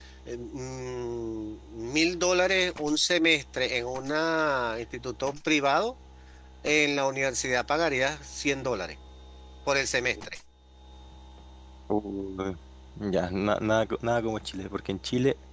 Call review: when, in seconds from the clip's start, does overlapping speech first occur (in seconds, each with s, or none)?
none